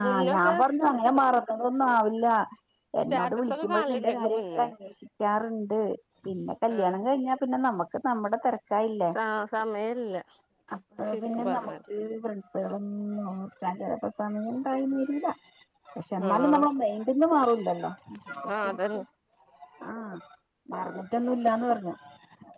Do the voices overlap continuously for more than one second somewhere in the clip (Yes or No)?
Yes